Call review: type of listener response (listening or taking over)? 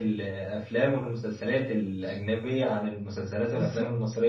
taking over